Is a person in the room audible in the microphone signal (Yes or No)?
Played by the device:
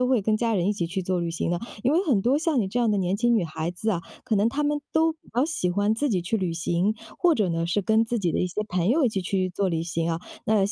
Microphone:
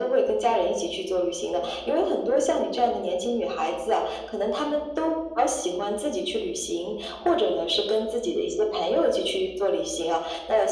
No